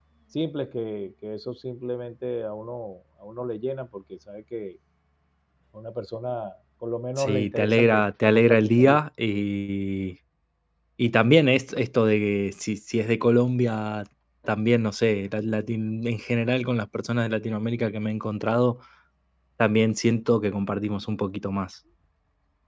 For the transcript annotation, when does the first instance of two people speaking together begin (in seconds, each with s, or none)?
7.2 s